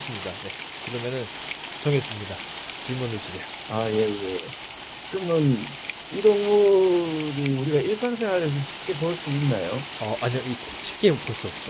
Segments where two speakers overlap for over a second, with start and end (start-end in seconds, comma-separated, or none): none